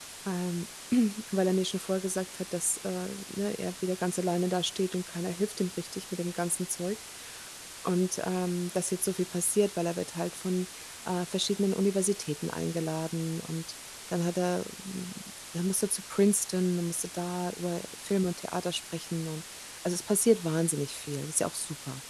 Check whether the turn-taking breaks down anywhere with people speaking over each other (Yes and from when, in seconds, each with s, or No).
No